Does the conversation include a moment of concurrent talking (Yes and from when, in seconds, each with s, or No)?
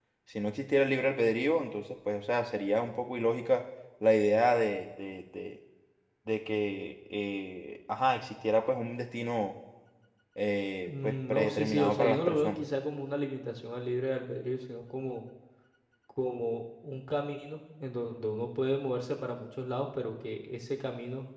Yes, from 10.8 s